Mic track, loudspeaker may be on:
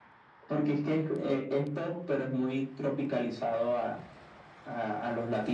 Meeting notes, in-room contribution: none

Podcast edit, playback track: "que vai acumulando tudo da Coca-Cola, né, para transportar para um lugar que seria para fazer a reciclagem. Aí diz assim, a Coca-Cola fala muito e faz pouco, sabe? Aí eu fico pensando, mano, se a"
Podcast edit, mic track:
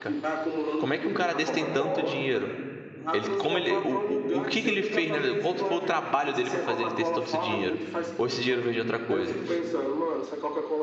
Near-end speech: present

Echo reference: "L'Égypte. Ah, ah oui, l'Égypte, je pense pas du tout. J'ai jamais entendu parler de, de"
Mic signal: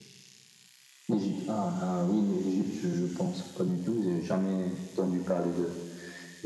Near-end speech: none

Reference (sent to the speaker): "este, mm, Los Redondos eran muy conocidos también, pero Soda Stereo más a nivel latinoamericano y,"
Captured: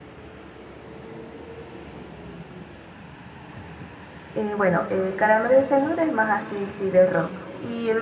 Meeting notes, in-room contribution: present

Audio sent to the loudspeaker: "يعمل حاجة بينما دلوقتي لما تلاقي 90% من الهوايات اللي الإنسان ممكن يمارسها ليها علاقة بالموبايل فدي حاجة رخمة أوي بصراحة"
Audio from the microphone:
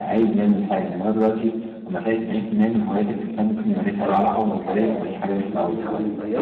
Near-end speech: present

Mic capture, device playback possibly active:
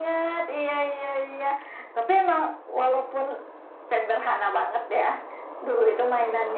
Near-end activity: none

